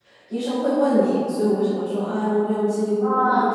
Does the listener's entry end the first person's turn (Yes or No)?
Yes